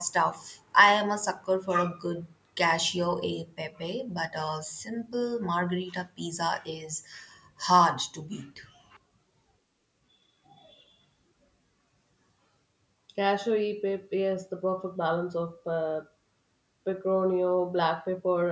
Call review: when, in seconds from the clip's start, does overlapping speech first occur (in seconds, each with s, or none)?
none